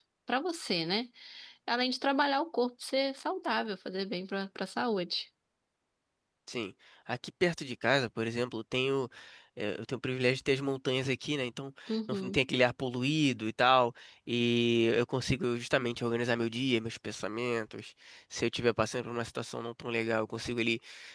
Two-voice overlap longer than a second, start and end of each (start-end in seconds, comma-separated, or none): none